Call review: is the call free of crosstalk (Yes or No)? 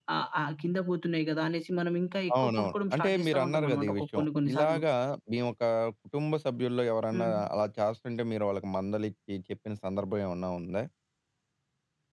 No